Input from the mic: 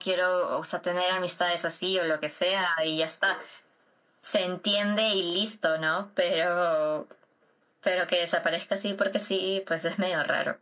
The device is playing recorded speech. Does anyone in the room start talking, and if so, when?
none

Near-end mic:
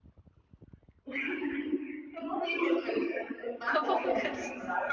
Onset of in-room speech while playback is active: 3.6 s

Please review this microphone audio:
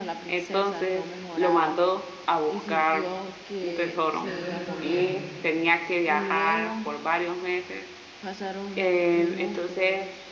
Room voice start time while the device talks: 4.1 s

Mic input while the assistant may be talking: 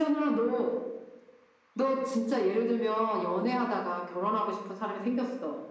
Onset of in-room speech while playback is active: none

